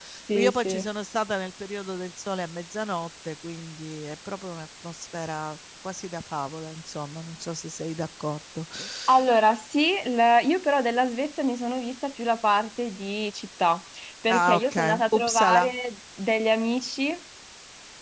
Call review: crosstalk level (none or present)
present